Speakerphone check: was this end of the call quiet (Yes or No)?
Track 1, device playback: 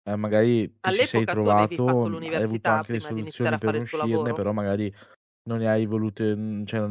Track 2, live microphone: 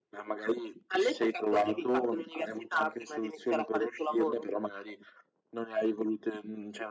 Yes